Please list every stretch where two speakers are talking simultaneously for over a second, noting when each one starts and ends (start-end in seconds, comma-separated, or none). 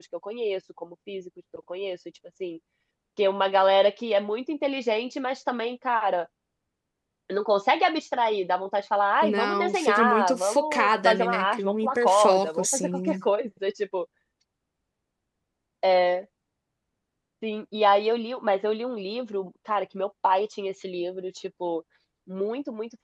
9.2-13.2